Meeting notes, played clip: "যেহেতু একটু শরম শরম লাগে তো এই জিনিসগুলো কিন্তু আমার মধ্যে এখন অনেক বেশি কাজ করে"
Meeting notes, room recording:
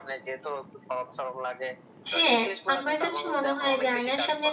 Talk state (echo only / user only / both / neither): both